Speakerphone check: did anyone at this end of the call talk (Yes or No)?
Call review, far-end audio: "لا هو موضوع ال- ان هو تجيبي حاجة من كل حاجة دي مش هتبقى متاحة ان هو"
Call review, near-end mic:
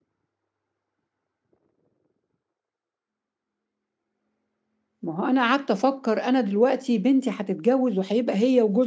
Yes